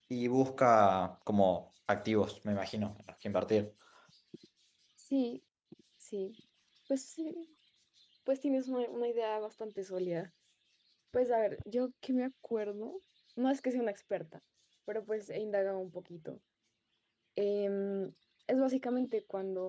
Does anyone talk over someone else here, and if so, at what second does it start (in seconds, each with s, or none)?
none